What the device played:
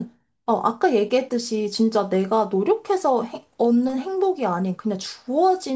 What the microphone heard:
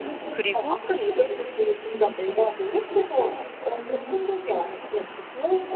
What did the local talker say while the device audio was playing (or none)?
그리고,